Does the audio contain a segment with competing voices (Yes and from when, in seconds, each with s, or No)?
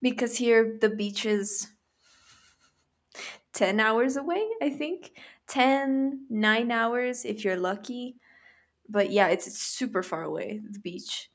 No